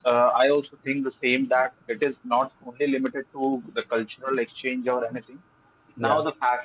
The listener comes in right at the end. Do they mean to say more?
No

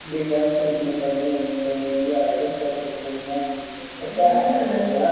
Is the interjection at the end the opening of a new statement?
Yes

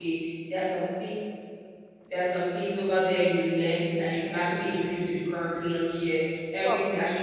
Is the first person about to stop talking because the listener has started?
No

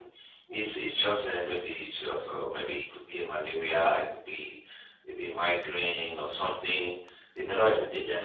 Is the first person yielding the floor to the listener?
No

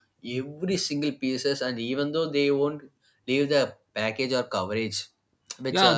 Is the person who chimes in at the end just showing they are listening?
No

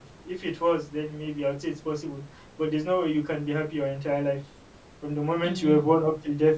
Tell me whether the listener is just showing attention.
Yes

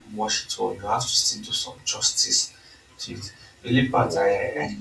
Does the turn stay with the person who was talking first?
Yes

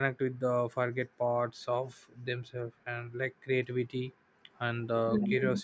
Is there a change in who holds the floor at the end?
No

